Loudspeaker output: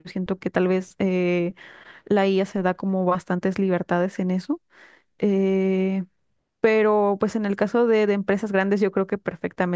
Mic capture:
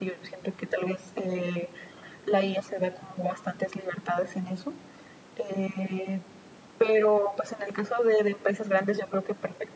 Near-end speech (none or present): none